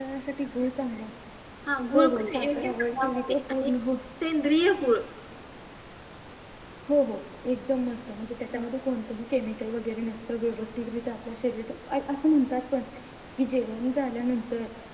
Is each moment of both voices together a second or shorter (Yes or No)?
No